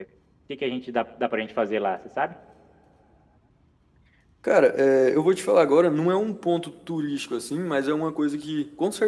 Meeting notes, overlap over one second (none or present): none